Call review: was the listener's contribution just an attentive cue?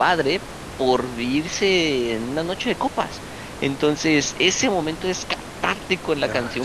Yes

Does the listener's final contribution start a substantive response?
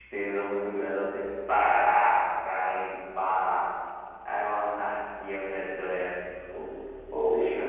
Yes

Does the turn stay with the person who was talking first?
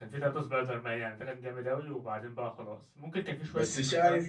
No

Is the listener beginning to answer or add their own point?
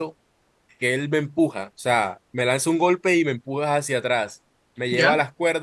No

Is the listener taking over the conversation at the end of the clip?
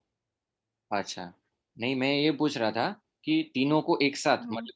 No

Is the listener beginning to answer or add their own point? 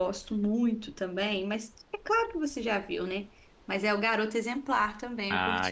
Yes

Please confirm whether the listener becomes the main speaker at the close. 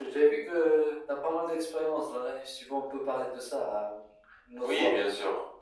Yes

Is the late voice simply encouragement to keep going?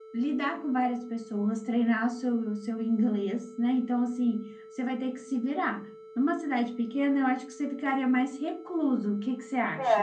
No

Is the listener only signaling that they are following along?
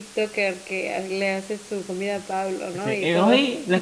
No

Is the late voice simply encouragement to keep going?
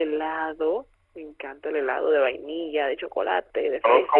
No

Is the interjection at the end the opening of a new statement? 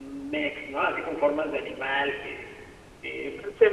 Yes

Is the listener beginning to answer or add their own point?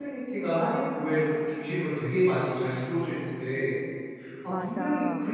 No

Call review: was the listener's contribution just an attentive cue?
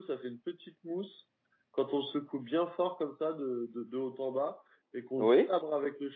Yes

